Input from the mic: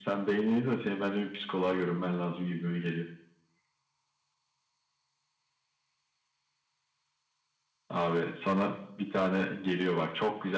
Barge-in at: none

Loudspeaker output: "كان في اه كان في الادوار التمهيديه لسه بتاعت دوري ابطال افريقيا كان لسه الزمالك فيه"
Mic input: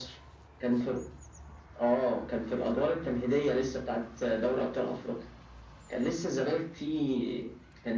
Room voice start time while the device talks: none

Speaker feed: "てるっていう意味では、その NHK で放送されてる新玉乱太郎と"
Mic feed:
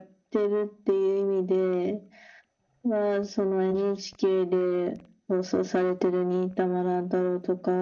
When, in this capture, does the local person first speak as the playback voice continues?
none

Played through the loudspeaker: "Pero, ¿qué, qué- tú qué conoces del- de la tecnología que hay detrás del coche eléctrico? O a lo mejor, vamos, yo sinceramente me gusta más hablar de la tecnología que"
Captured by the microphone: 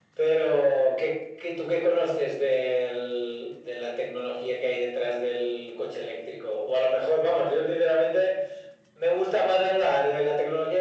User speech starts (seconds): none

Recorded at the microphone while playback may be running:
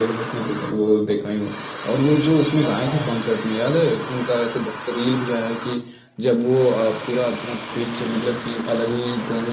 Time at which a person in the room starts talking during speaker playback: 3 s

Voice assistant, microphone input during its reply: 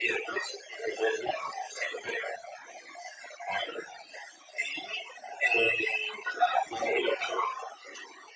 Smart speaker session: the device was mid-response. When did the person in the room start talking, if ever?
none

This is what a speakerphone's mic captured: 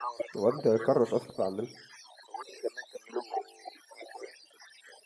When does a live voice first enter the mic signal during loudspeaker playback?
0 s

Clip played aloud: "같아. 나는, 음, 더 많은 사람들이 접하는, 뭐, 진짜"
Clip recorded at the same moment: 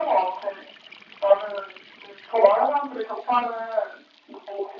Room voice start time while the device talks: none

